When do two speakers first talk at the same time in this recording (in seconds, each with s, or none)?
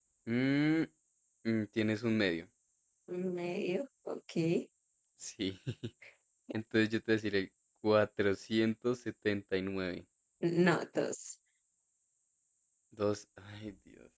none